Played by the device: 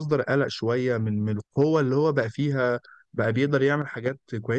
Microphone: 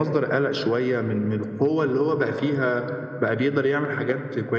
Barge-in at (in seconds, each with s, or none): none